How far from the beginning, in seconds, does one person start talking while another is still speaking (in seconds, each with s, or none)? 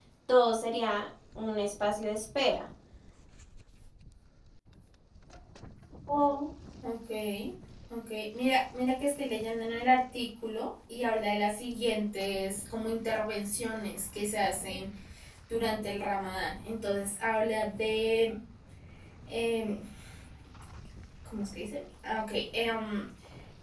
none